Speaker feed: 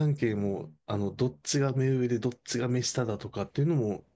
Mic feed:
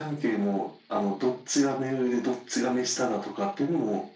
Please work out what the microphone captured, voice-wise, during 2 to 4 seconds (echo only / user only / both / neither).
echo only